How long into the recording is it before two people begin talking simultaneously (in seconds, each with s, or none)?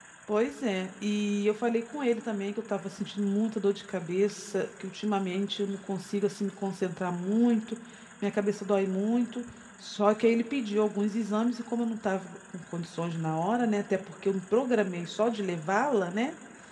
none